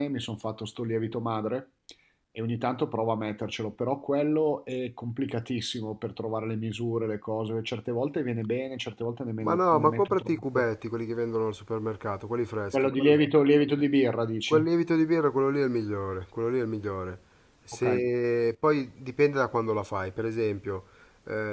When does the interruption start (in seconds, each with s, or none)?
9.4 s